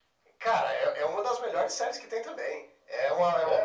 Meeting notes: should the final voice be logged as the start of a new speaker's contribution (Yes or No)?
No